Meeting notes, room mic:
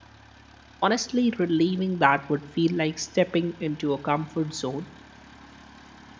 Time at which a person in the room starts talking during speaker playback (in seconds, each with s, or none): 0.8 s